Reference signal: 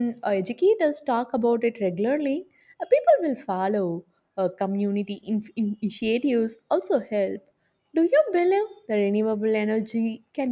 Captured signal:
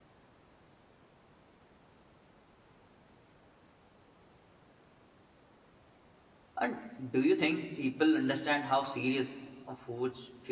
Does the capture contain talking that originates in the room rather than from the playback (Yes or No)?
Yes